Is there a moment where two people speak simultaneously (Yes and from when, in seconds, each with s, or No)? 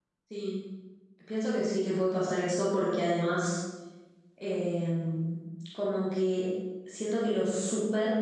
No